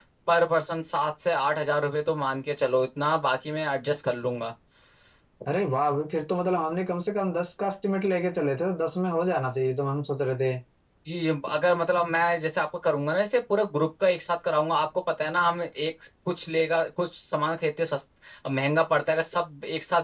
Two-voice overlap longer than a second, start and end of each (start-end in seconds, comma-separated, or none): none